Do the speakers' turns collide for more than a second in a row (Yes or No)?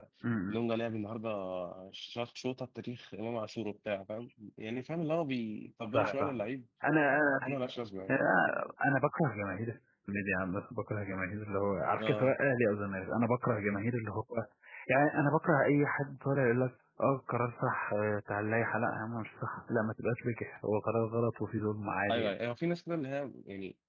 No